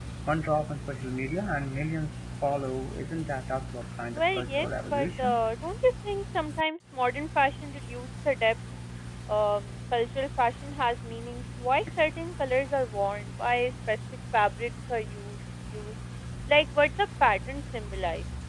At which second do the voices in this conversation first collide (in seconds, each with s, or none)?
4.1 s